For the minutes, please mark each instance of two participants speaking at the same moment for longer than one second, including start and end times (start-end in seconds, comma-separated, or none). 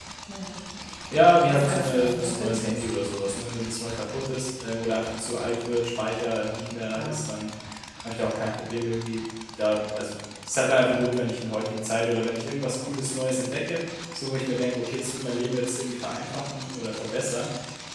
1.5-2.8